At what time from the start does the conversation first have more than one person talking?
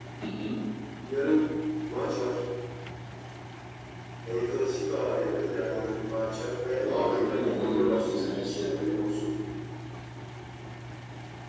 6.8 s

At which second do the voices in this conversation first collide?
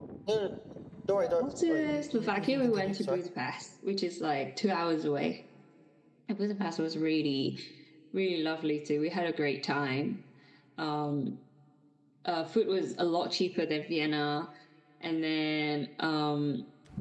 1.2 s

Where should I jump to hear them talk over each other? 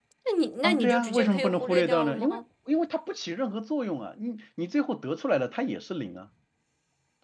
0.6 s

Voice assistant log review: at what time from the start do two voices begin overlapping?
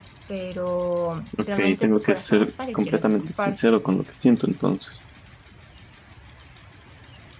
1.3 s

